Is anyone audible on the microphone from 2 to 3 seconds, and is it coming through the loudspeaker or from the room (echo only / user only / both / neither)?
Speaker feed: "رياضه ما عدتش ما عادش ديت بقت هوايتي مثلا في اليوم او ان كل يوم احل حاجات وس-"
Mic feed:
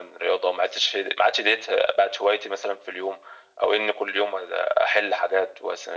echo only